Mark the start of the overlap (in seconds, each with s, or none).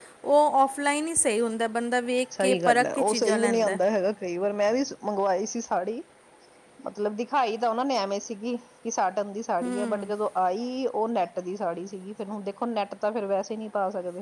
2.4 s